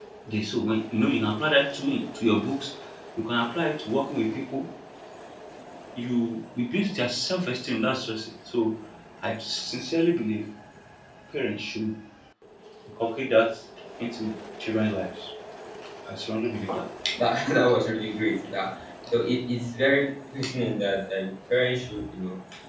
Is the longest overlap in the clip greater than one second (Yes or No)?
No